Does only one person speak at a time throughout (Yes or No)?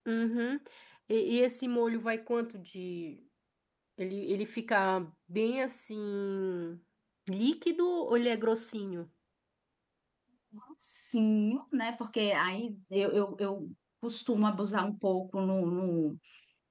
Yes